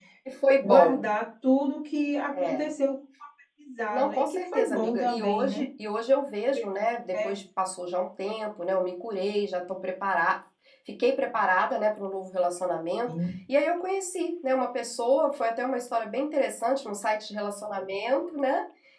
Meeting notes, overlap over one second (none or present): present